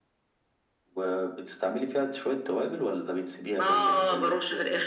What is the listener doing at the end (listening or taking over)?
taking over